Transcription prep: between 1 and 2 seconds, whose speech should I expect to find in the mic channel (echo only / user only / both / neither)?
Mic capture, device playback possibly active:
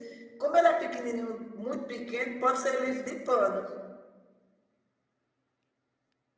echo only